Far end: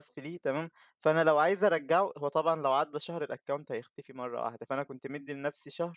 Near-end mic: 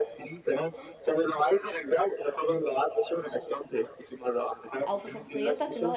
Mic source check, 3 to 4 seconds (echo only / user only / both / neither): echo only